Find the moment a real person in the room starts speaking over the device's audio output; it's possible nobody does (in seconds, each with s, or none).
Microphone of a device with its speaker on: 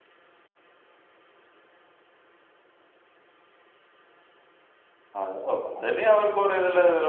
5.2 s